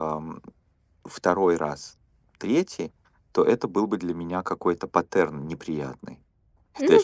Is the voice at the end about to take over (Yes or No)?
Yes